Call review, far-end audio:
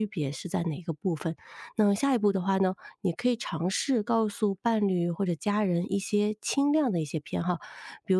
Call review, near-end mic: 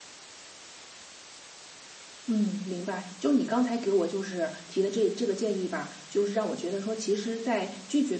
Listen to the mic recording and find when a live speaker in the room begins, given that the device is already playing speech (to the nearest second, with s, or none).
2 s